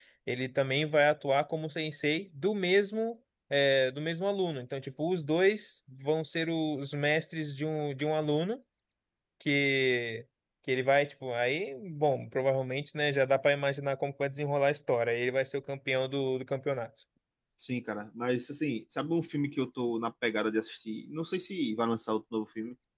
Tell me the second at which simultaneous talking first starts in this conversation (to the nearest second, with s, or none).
none